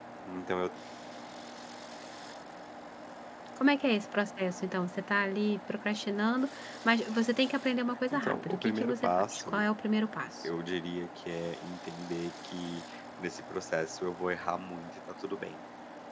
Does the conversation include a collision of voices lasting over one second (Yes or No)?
Yes